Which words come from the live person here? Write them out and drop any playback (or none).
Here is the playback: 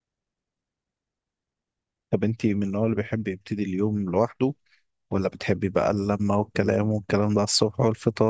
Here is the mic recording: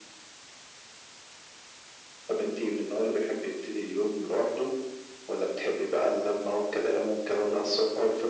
none